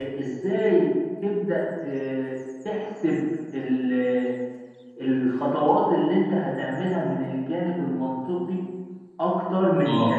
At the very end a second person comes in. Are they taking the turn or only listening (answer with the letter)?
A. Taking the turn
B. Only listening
B